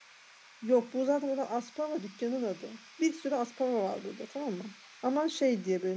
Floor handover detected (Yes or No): No